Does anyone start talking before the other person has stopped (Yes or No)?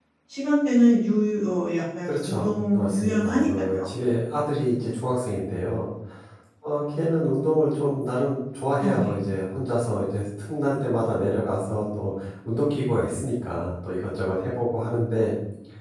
Yes